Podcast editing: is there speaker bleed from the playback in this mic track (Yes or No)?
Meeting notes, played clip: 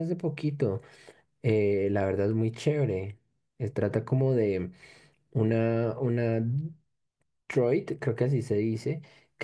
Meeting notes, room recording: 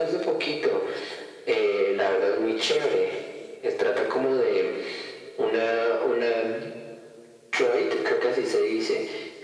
Yes